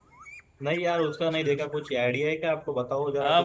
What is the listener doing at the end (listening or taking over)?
taking over